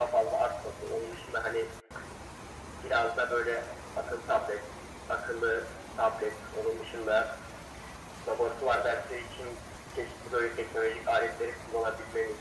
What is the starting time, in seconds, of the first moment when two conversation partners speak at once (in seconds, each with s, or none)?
none